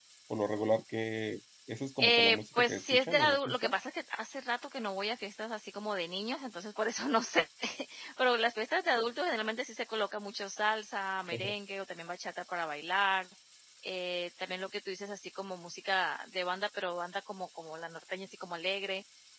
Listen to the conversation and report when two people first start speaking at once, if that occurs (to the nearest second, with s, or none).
2 s